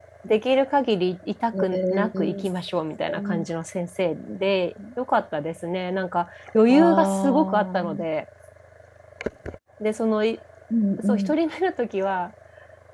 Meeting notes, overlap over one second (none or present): present